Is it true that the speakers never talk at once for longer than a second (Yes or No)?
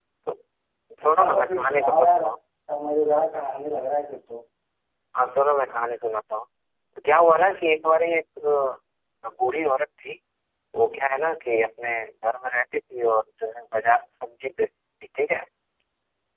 No